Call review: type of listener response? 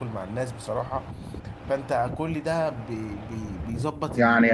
taking over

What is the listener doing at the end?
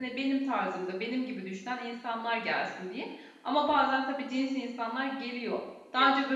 listening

